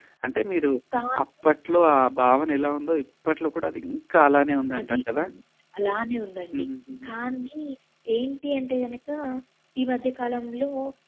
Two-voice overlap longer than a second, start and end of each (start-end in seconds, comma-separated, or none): none